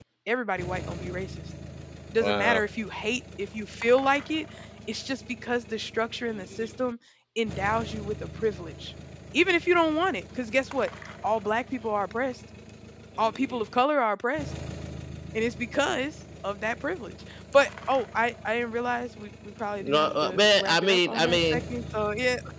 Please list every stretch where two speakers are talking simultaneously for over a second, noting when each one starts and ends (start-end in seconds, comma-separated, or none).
19.9-21.6